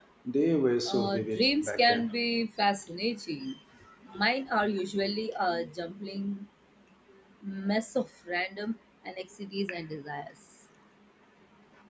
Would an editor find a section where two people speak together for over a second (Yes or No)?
Yes